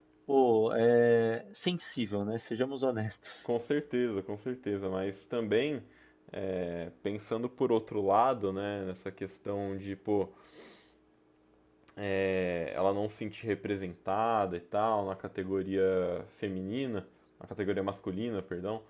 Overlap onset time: none

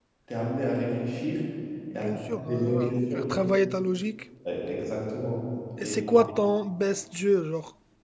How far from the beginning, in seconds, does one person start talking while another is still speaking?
1.9 s

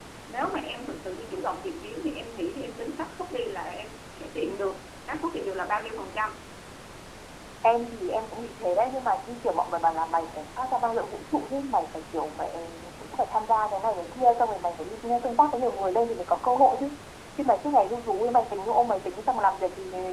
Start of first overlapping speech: none

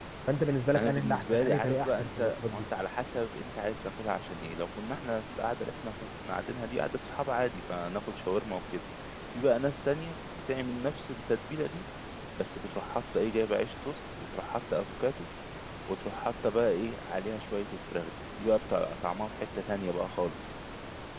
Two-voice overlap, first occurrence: 0.8 s

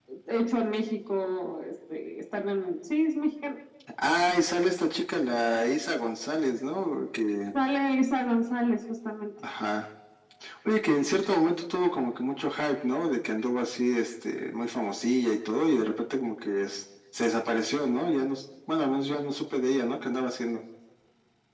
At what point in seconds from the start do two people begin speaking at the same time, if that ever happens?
none

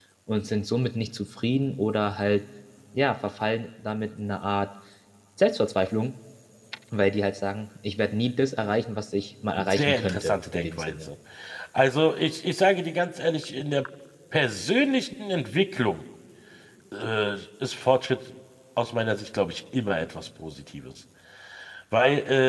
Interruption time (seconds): 9.6 s

